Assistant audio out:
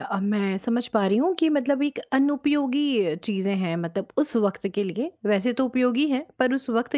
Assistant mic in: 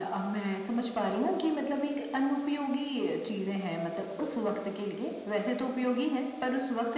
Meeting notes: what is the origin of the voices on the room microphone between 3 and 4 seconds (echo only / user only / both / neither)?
echo only